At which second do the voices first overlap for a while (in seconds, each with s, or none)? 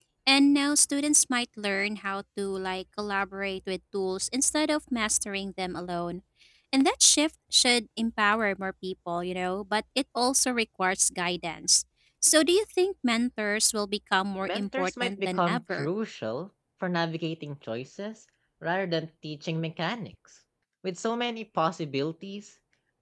14.4 s